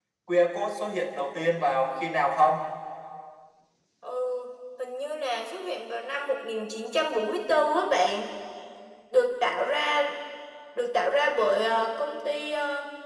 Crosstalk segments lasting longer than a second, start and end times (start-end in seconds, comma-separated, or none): none